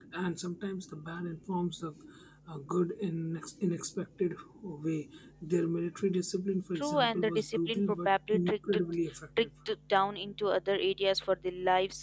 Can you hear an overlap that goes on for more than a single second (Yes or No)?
Yes